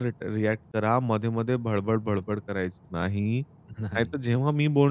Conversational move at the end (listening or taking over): listening